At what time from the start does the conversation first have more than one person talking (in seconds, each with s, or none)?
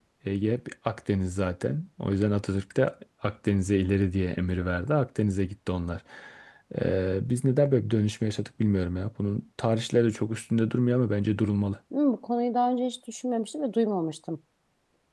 none